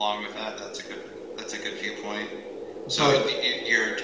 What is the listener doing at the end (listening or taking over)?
listening